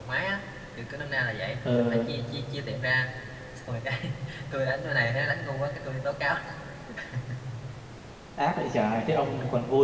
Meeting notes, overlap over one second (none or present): none